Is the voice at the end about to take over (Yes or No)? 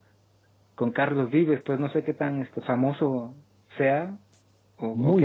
Yes